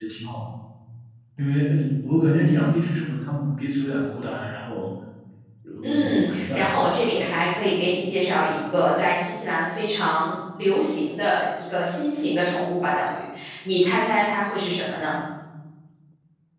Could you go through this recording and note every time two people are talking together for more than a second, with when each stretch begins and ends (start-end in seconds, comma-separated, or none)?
5.8-7.6